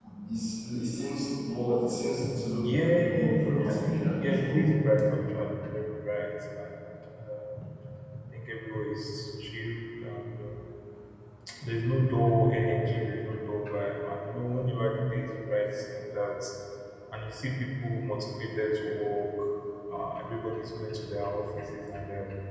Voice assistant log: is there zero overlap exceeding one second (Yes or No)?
No